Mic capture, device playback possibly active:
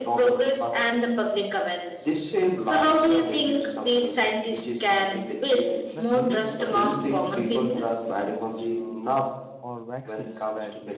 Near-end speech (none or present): present